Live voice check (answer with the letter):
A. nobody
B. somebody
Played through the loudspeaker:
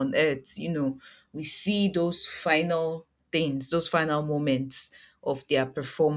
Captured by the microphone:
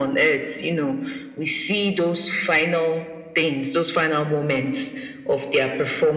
A